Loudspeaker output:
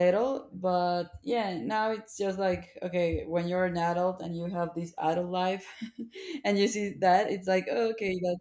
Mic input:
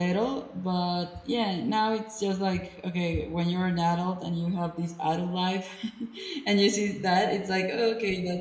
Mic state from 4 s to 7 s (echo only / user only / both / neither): echo only